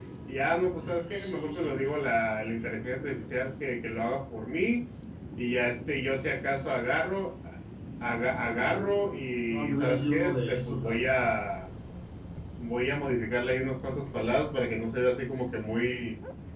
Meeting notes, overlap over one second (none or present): present